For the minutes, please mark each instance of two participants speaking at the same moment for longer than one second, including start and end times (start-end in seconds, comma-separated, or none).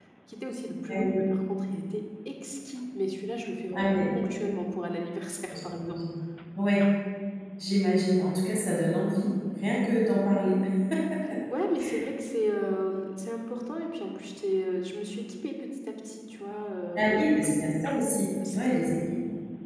none